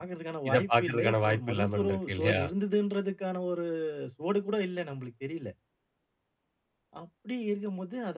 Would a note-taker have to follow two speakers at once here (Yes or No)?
Yes